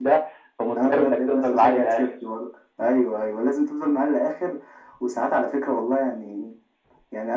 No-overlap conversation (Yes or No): No